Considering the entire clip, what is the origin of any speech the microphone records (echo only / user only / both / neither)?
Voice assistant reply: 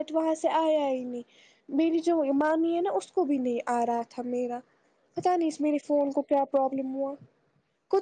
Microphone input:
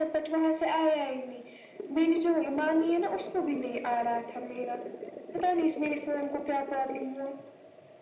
echo only